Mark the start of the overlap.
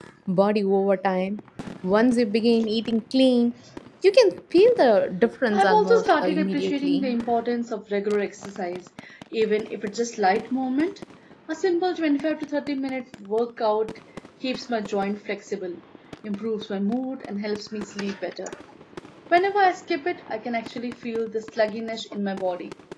5.5 s

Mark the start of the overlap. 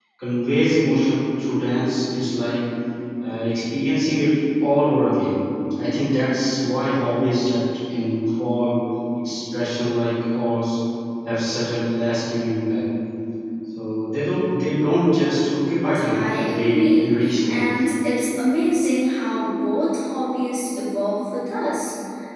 16.1 s

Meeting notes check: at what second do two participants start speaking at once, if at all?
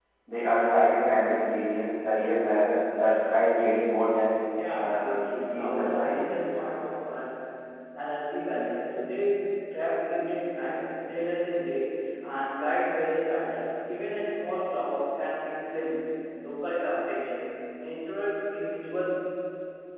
4.6 s

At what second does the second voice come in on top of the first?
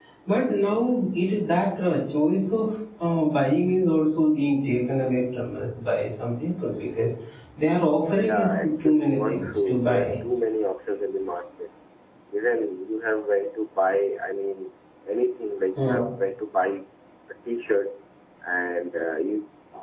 8.2 s

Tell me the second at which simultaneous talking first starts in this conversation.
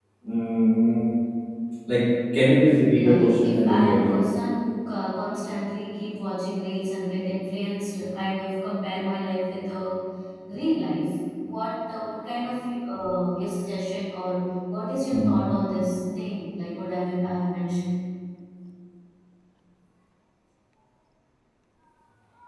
2.9 s

